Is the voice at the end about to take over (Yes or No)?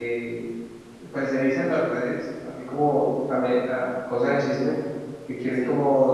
No